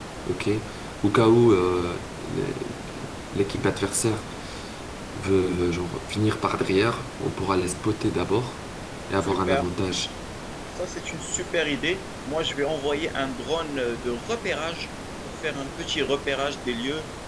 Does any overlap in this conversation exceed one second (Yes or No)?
No